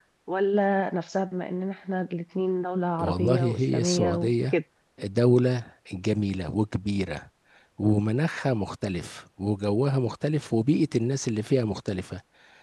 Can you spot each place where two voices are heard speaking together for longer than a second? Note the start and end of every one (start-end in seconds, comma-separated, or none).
3.0-4.5